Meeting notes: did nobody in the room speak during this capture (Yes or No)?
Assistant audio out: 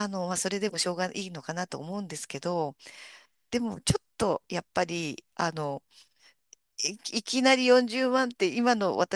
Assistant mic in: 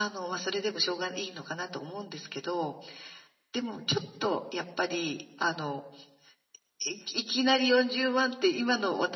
Yes